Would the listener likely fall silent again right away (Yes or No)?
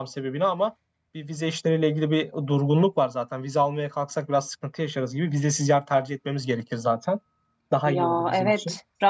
No